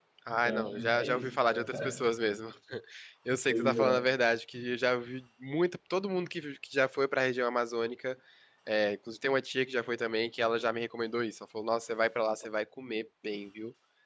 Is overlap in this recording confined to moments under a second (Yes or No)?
No